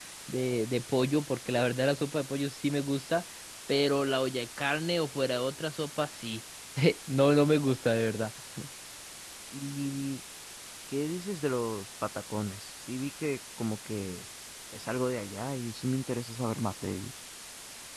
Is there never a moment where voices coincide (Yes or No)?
Yes